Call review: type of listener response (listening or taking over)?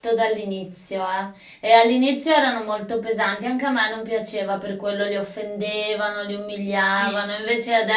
listening